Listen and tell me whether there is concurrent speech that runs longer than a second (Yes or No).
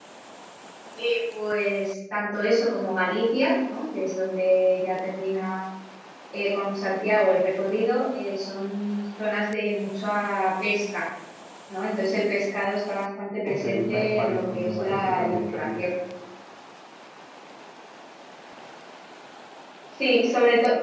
Yes